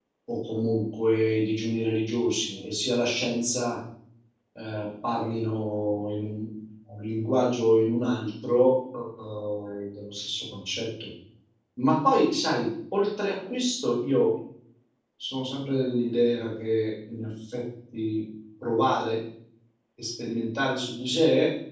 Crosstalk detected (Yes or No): No